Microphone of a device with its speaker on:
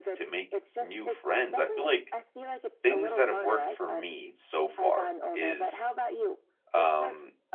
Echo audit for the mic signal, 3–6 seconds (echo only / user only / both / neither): both